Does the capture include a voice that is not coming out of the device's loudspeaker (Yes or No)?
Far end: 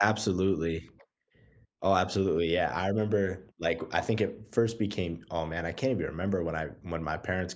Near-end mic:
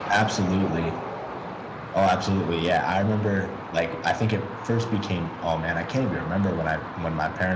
No